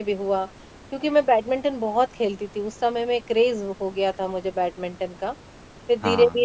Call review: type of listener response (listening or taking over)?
listening